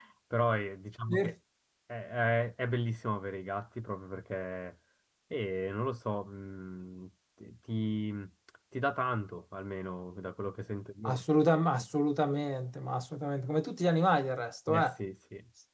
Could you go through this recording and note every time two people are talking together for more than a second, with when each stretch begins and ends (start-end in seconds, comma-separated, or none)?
none